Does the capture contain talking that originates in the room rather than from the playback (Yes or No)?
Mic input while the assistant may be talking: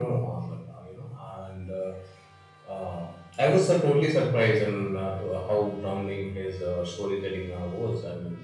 No